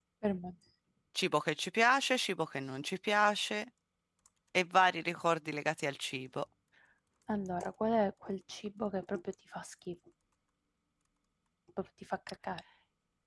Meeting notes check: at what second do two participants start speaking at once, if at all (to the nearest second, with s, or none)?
none